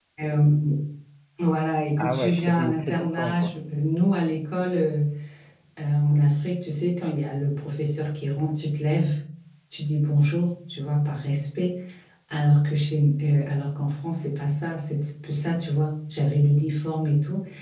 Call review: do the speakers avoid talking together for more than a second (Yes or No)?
No